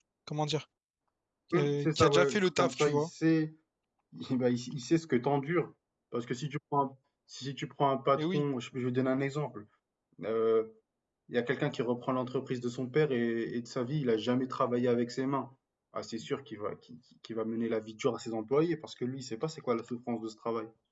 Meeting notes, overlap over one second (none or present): present